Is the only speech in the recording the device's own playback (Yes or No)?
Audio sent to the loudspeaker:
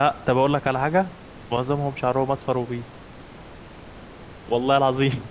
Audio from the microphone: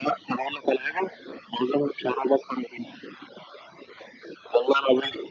Yes